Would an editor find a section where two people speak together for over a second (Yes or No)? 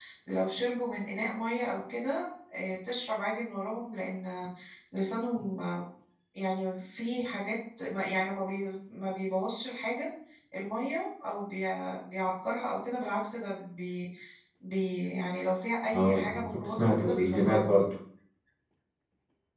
Yes